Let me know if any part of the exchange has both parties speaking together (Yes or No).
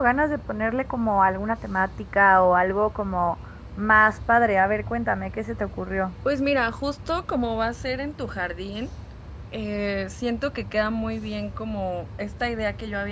No